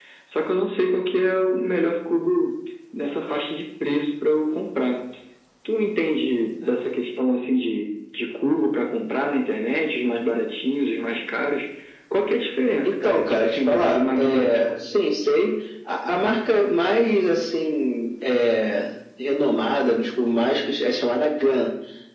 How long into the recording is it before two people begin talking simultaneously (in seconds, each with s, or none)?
12.8 s